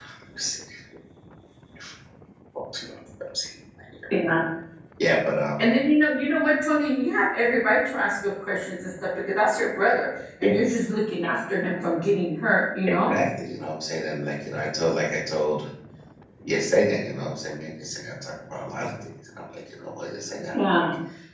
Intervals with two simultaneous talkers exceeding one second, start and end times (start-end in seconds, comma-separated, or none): none